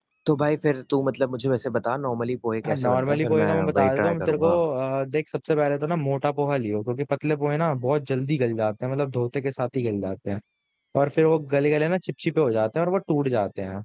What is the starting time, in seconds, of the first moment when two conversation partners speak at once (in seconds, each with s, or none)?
2.6 s